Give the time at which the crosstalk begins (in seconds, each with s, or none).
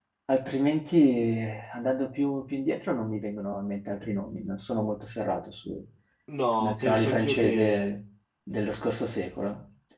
6.6 s